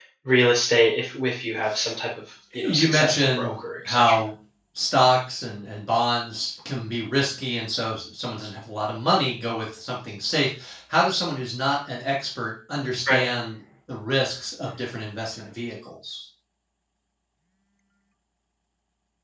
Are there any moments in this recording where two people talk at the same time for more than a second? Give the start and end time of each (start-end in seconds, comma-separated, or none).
2.5-4.0